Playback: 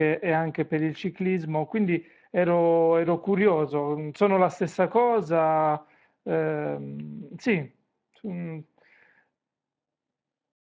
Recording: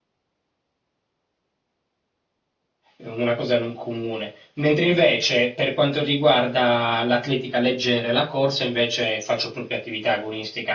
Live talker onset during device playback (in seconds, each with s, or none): 3.0 s